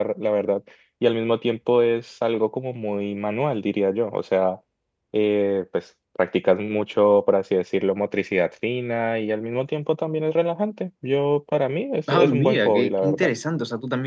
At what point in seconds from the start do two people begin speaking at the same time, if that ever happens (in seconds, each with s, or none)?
12.1 s